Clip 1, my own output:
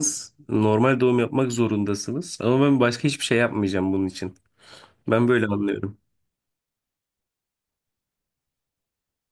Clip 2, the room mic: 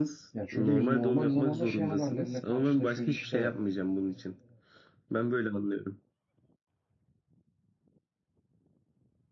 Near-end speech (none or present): present